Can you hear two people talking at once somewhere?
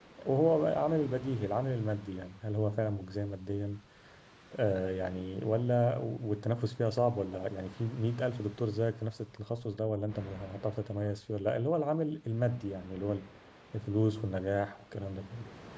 No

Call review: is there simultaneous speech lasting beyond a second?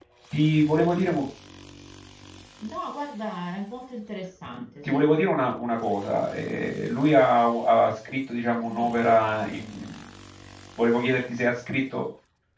No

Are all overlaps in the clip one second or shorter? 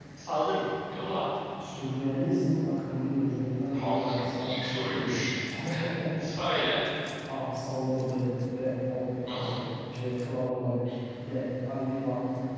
No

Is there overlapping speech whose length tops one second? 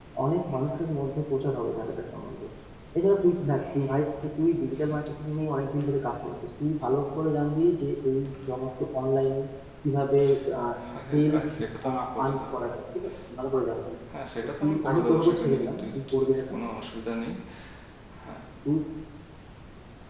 Yes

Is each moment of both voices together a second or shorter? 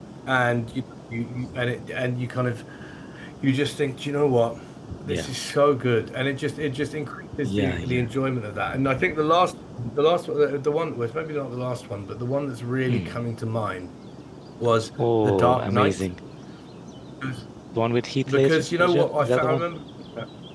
No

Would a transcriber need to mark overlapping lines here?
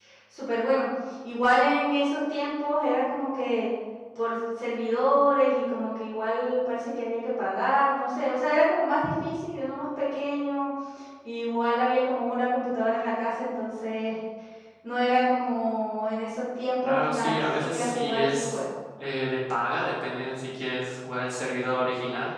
Yes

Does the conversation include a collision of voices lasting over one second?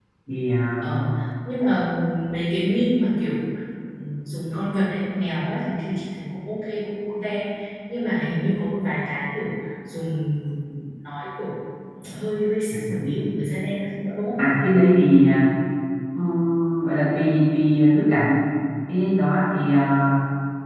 No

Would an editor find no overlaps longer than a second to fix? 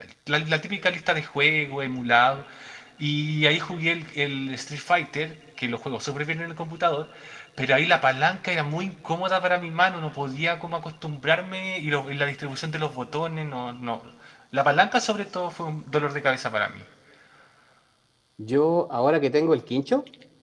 Yes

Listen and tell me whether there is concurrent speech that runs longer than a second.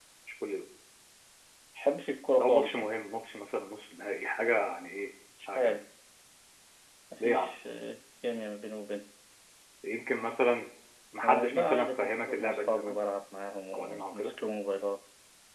Yes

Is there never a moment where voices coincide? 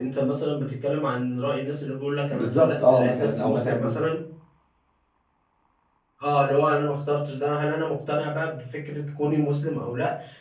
No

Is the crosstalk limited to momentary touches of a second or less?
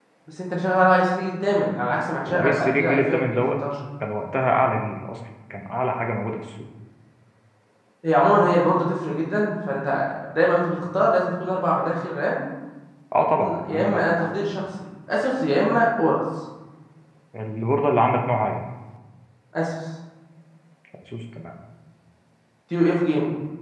No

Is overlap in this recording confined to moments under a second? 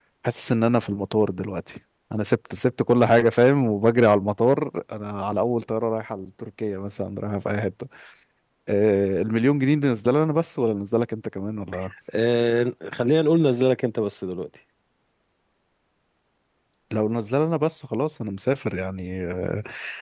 Yes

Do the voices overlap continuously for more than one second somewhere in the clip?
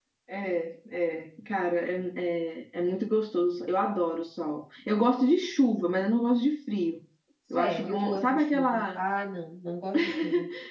Yes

